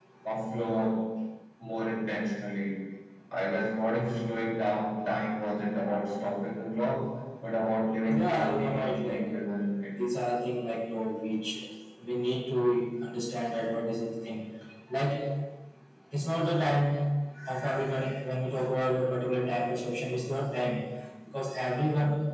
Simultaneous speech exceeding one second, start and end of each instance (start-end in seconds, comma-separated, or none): 8.1-9.4